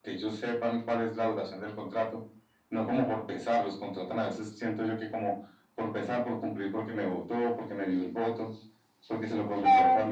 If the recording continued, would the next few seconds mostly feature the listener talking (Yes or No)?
Yes